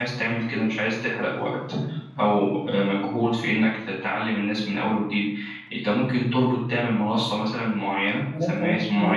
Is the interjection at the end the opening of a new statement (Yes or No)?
Yes